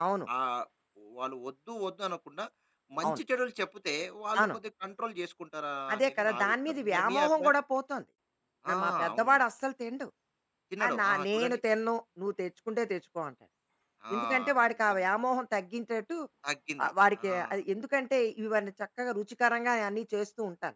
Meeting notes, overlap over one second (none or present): present